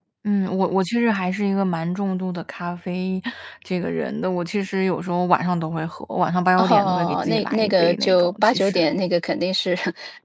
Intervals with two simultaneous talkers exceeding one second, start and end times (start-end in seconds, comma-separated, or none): 6.6-8.8